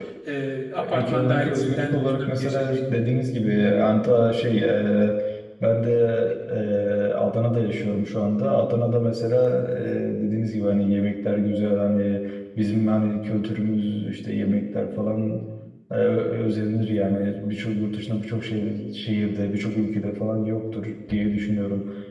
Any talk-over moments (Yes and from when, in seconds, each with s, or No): Yes, from 0.8 s